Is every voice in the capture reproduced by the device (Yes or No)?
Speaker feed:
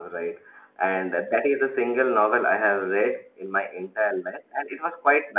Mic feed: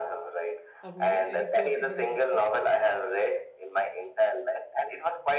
No